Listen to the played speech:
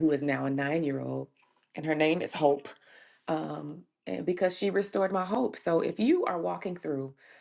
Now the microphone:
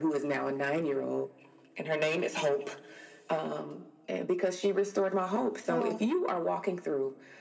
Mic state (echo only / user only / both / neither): both